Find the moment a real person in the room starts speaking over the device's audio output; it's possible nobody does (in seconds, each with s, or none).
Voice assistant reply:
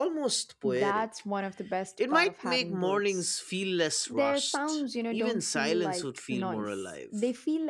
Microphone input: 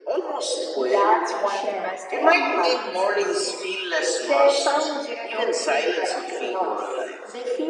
0.8 s